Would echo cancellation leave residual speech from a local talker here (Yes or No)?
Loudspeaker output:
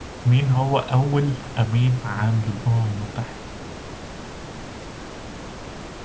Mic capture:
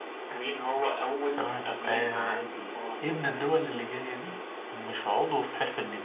Yes